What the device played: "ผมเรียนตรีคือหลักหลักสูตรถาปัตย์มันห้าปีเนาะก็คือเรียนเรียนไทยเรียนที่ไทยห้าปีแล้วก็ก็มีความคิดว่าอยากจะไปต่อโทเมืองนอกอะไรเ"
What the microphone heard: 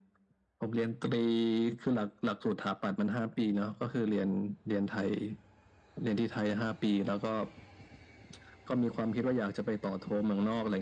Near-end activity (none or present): none